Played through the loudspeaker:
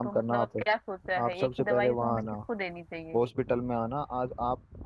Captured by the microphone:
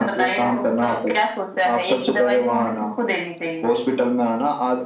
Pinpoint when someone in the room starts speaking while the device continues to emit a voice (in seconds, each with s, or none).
none